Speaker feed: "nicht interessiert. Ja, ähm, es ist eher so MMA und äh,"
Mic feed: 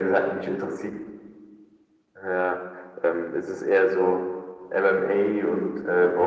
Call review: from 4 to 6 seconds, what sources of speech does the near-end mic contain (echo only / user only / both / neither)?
echo only